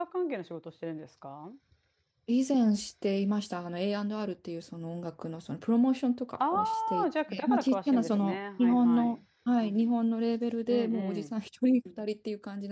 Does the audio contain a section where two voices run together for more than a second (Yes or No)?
Yes